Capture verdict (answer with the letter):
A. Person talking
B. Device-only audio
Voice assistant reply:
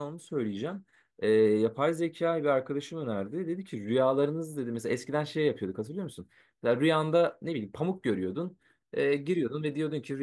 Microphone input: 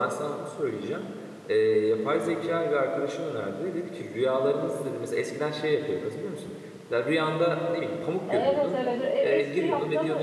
A